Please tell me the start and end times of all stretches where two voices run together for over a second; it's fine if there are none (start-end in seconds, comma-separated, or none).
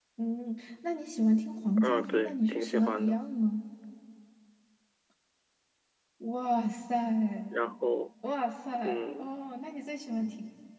1.8-3.2